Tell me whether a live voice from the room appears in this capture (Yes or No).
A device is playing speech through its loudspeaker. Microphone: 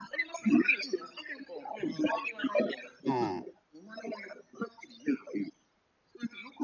Yes